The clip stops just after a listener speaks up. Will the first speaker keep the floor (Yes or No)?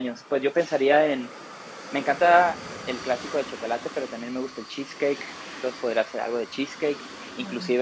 Yes